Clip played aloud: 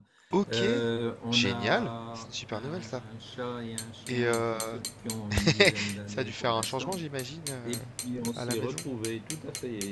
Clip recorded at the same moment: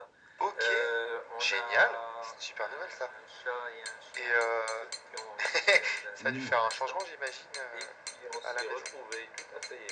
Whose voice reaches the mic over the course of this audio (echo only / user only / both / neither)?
both